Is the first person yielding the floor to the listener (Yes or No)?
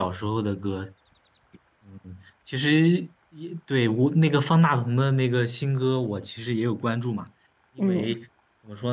No